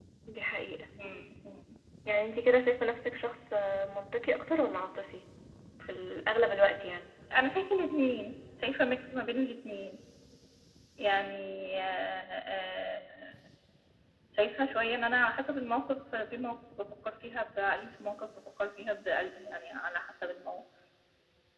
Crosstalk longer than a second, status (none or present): none